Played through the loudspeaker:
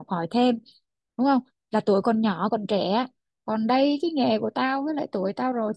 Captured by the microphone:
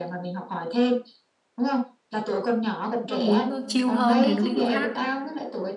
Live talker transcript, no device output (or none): nó muốn nó chill hơn thì nó đi chỗ khác